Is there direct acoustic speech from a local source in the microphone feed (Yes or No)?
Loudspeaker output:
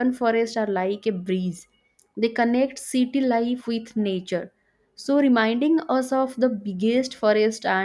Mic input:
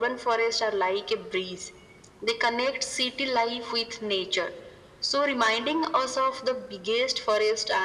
No